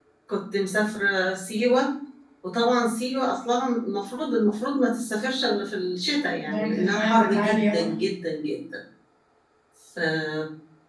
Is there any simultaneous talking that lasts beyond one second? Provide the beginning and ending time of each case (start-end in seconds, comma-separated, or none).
6.5-7.9